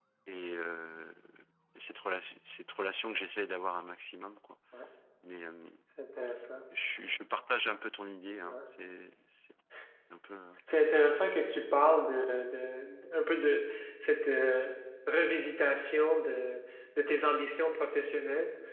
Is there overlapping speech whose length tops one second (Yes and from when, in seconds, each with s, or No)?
No